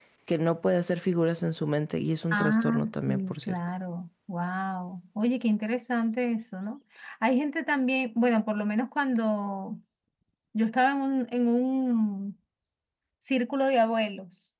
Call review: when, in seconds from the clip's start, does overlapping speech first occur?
2.2 s

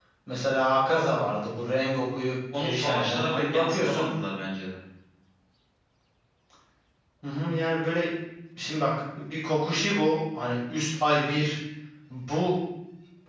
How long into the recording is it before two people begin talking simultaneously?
2.5 s

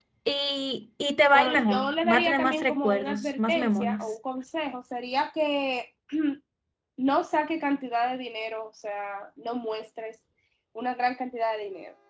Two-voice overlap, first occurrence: 1.3 s

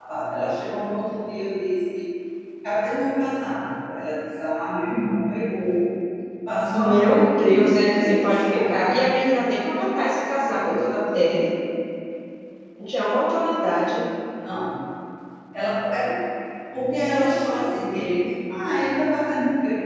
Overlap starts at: 6.7 s

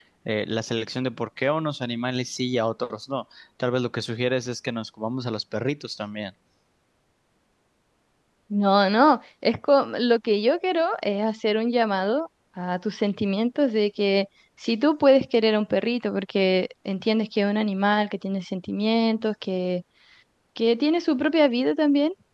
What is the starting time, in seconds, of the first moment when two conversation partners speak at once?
none

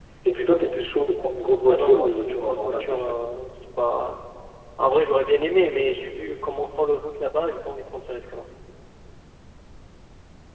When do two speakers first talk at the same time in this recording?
1.7 s

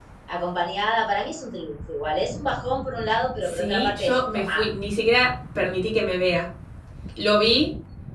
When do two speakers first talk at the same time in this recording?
3.4 s

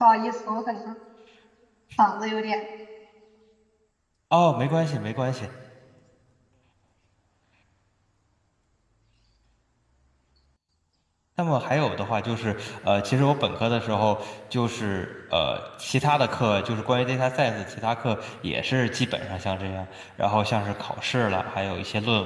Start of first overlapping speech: none

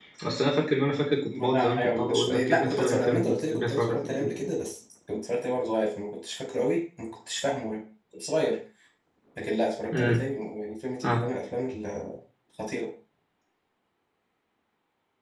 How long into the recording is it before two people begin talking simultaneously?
1.3 s

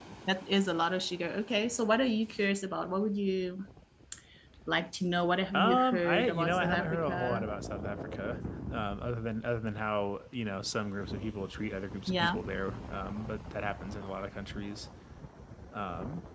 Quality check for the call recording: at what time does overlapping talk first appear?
5.5 s

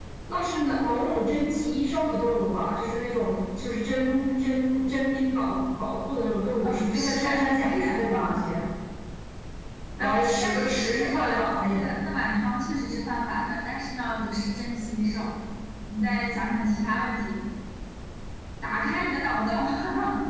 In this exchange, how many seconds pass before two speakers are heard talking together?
6.6 s

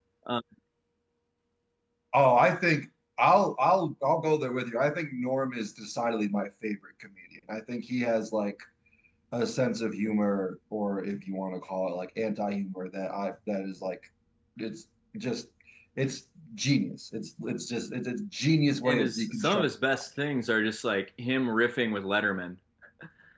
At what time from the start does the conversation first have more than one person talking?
18.8 s

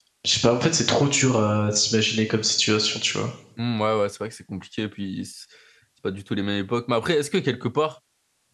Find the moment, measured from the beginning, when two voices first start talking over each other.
none

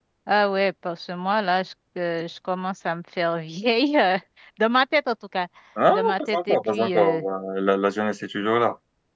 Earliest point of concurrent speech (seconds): 5.9 s

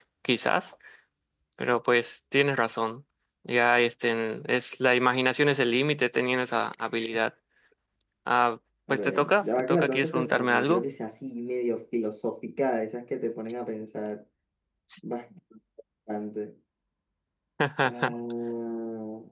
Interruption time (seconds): 8.9 s

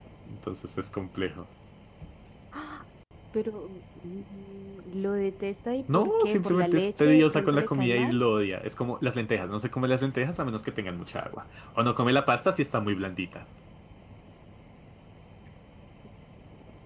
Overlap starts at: 5.9 s

